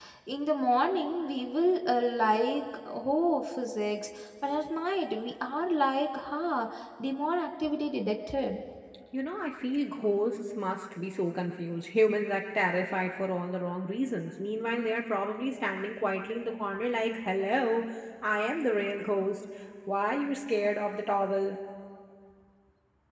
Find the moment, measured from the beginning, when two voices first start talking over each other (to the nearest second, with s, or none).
none